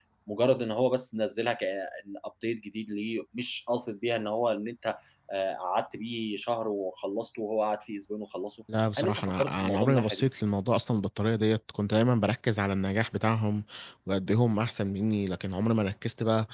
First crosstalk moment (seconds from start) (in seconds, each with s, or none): 9.0 s